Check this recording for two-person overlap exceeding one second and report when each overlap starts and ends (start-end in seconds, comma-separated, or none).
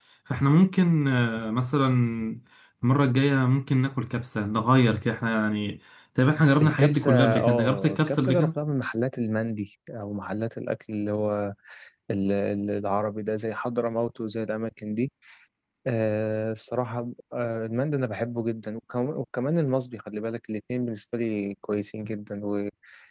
6.6-8.5